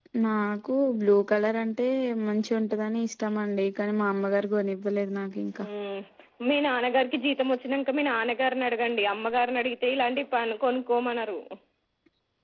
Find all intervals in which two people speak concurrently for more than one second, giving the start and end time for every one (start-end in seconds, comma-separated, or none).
none